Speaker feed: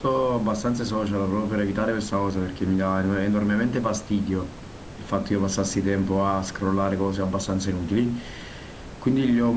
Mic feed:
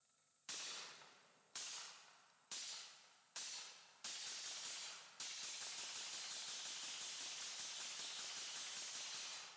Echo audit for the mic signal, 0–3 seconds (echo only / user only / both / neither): neither